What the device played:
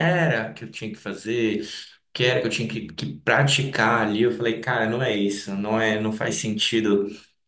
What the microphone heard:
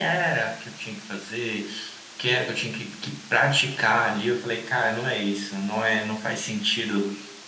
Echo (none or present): present